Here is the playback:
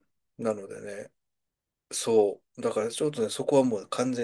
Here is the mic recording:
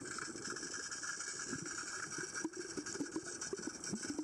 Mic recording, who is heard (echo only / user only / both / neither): neither